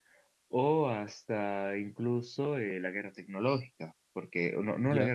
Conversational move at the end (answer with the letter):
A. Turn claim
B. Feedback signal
B